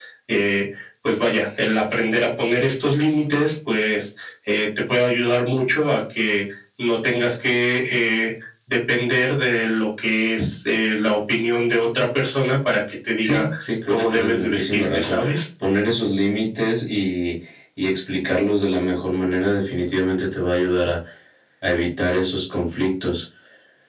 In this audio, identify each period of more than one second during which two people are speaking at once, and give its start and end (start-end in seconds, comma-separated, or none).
13.9-15.4